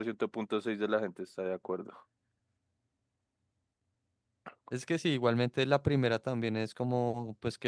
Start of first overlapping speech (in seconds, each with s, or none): none